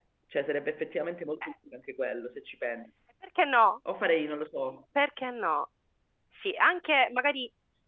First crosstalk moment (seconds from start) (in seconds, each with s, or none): none